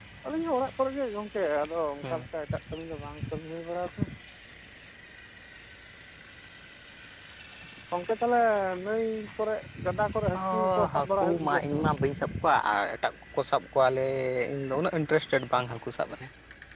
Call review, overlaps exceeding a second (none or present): present